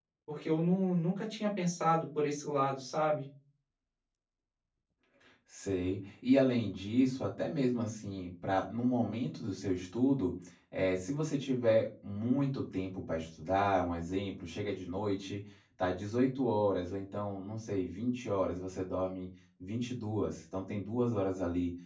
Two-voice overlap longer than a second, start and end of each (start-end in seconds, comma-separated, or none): none